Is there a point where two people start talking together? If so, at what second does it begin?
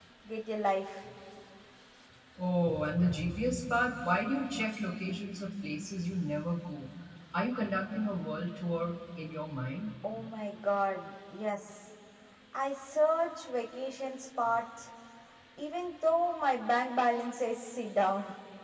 none

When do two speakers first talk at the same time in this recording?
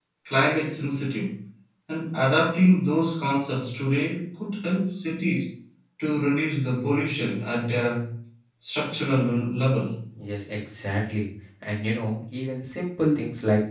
none

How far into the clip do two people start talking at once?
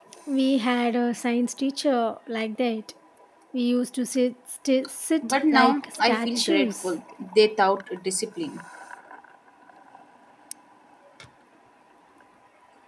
5.2 s

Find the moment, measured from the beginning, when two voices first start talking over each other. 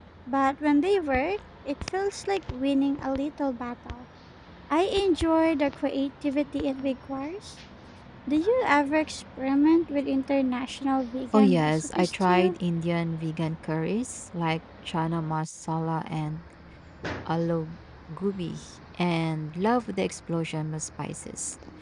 11.3 s

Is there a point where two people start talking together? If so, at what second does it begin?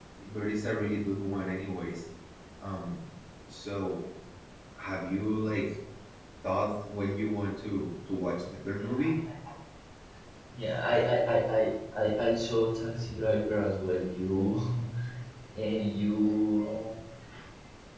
none

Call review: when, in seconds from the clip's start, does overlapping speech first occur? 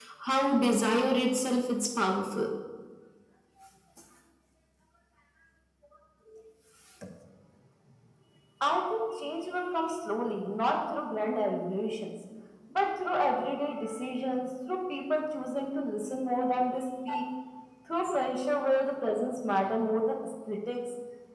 none

